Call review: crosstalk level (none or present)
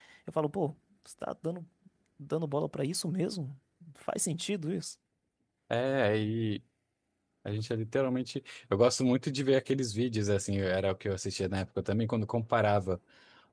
none